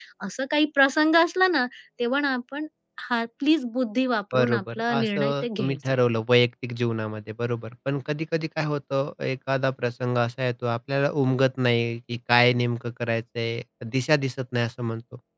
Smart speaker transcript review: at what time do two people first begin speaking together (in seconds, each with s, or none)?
4.3 s